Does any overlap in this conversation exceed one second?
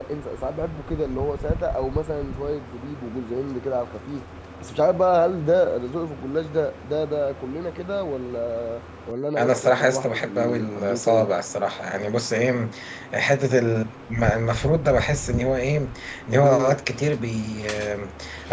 Yes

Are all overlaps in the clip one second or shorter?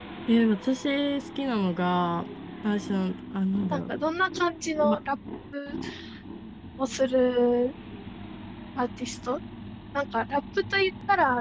Yes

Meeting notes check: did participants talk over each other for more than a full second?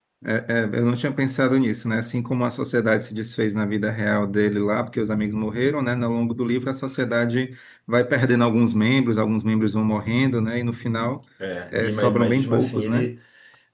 Yes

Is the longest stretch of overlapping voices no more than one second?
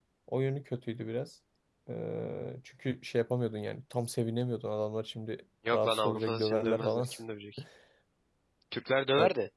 No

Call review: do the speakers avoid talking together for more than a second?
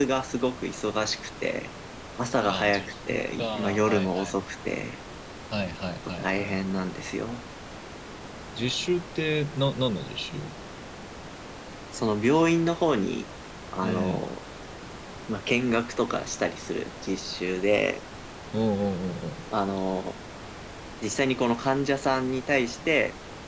No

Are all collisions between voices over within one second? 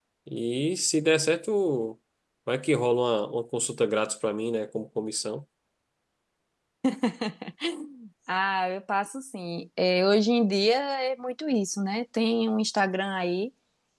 Yes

